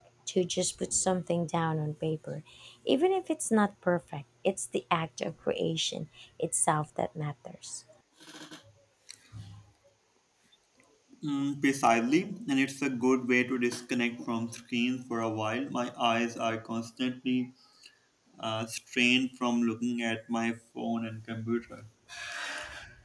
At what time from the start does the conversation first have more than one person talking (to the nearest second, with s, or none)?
none